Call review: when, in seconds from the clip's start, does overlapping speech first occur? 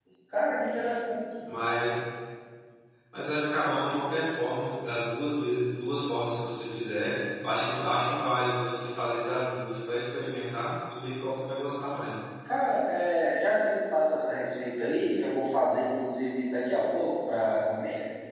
none

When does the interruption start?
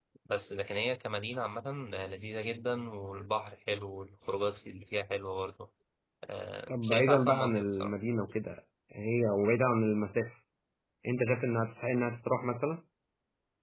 7 s

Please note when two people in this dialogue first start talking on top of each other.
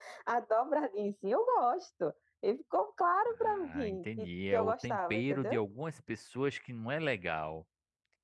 3 s

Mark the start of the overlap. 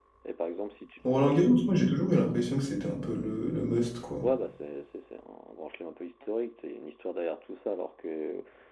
none

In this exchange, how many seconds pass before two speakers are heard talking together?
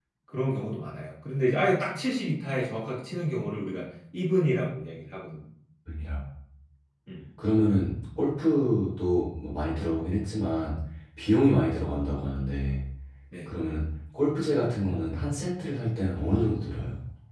none

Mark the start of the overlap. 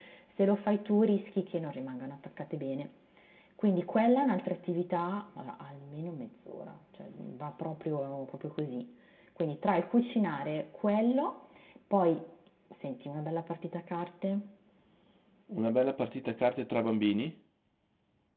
none

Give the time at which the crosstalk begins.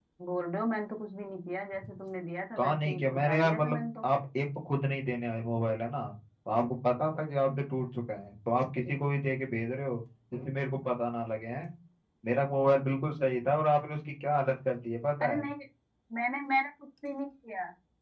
3 s

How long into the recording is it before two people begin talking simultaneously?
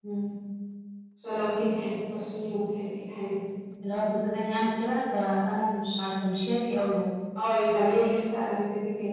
none

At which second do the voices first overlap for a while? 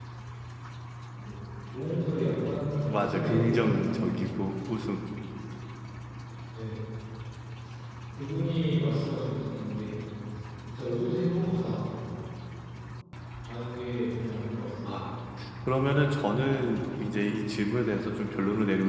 3 s

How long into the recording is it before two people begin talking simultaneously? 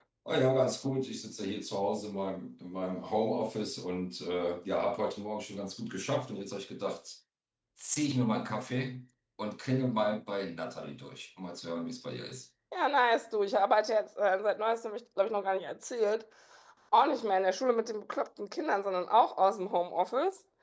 none

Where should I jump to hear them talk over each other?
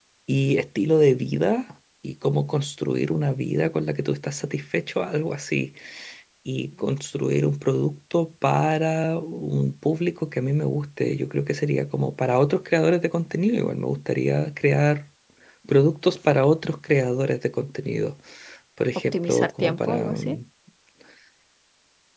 19 s

